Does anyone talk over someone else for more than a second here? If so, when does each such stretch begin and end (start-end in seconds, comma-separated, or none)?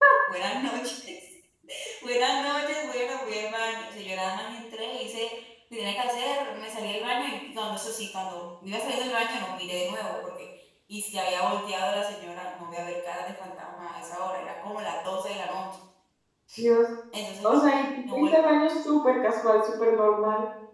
none